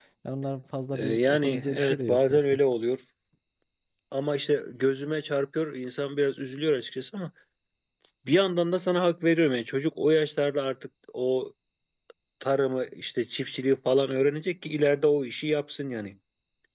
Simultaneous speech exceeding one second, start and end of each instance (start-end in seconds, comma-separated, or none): 0.9-2.4